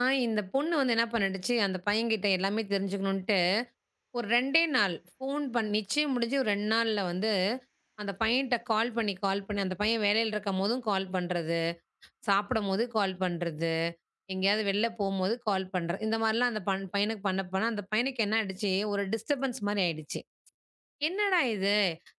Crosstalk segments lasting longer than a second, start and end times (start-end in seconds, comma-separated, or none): none